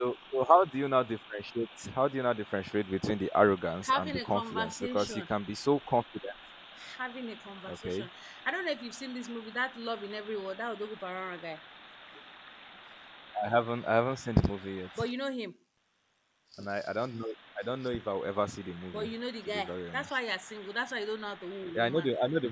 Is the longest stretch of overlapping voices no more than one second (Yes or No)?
No